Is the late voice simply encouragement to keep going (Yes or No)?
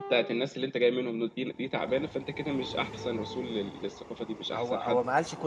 No